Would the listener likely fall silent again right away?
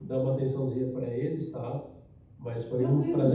Yes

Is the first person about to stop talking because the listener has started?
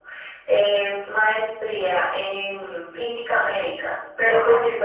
No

